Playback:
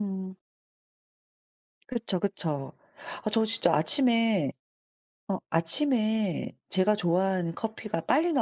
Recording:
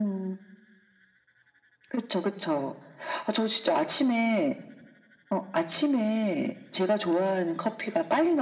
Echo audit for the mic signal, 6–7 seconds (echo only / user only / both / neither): echo only